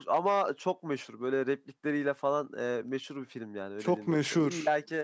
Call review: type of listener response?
listening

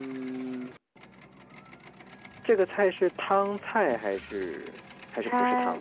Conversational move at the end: taking over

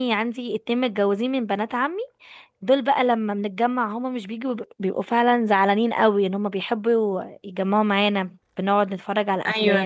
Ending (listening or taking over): taking over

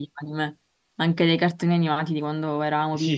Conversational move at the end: taking over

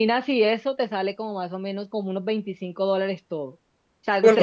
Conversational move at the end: listening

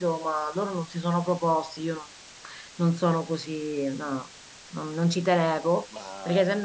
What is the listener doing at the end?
listening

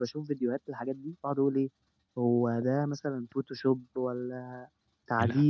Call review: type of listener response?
listening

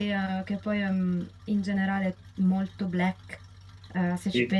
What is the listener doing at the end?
listening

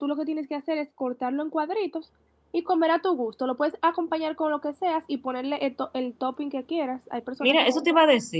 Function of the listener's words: taking over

